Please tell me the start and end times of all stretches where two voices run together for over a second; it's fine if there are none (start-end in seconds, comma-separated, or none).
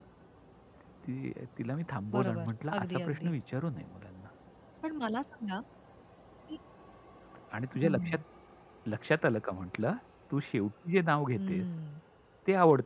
2.1-3.3